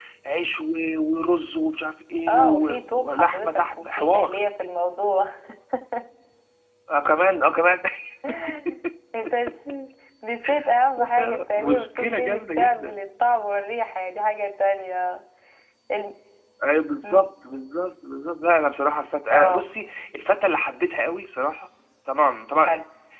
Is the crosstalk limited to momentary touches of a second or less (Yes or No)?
No